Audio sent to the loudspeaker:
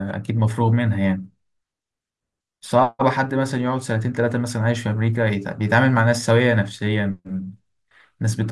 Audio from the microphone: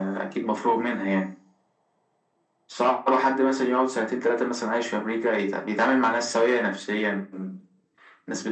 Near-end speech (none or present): none